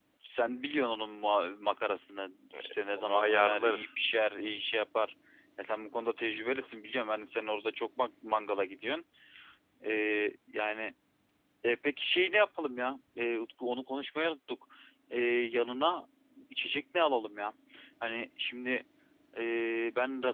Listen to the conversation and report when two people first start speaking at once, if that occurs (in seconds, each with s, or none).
2.5 s